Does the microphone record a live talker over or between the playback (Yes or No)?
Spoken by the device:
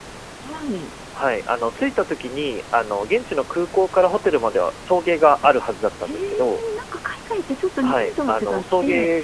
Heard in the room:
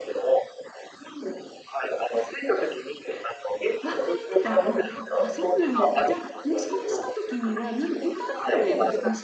Yes